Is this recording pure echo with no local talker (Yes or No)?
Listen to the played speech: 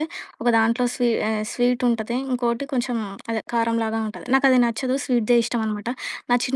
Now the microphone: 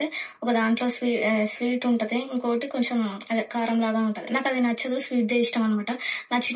Yes